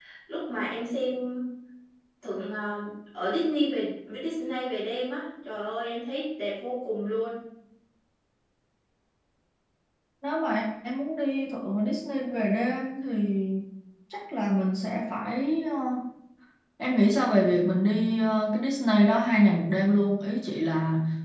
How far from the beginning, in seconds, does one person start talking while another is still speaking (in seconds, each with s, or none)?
none